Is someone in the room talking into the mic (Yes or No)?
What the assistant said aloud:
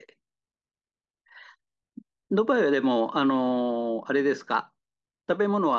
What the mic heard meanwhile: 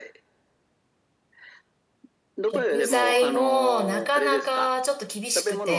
Yes